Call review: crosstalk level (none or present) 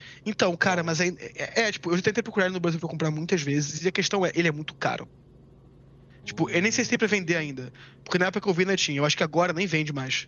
present